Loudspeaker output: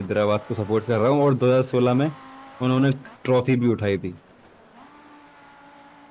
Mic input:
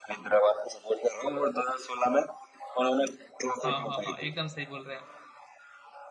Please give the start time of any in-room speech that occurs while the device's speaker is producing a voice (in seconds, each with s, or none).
3.6 s